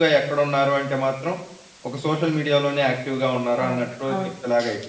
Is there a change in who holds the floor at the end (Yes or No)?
Yes